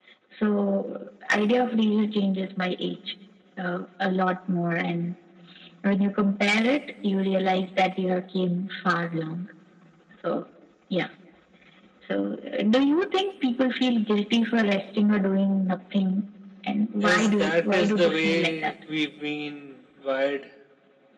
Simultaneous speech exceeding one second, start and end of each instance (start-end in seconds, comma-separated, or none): 17.0-18.7